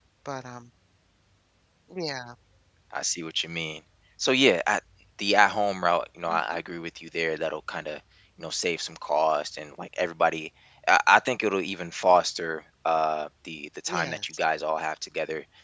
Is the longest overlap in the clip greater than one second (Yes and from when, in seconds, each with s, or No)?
No